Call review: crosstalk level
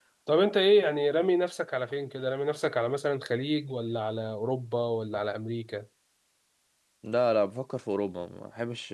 none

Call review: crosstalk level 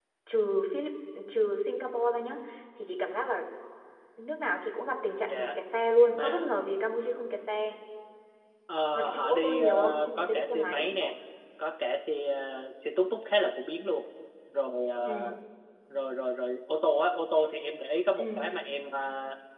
present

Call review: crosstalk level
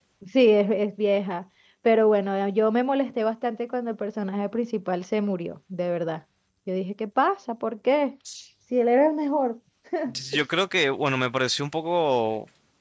none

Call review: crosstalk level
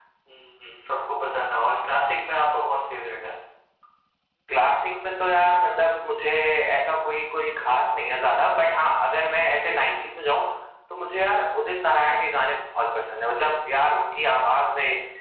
none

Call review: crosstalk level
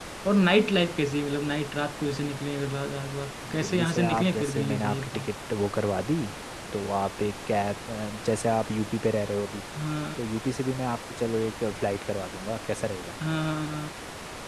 present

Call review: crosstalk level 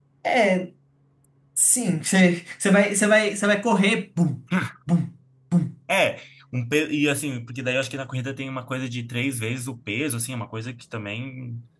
none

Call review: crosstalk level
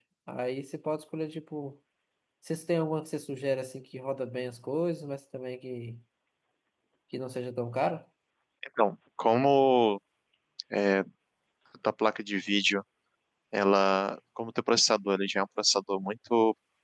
none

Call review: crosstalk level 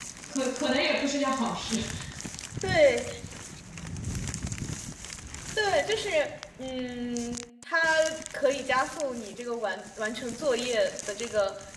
none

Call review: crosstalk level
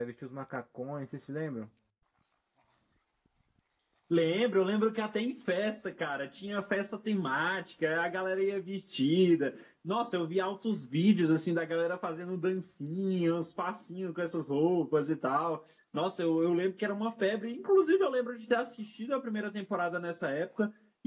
none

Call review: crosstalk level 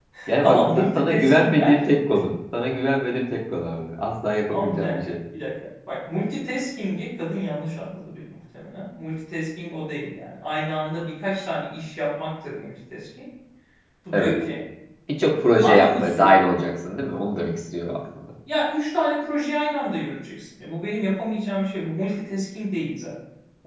present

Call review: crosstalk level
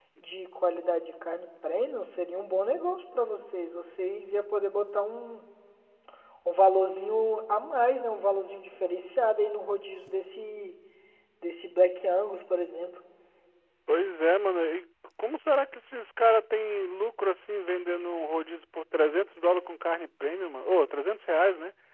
none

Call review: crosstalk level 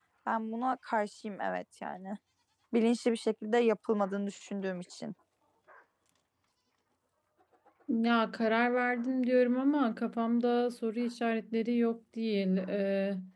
none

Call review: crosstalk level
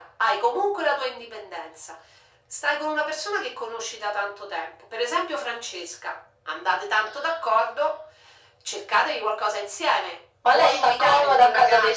present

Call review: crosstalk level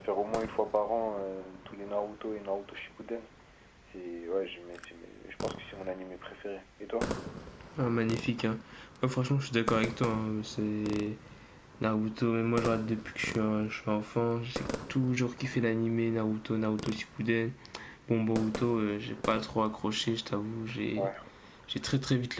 none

